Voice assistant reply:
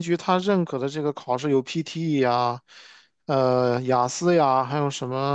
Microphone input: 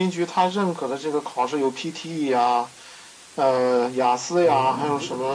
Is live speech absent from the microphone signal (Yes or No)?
No